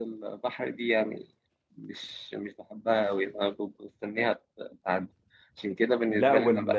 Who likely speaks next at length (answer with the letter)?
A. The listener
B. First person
A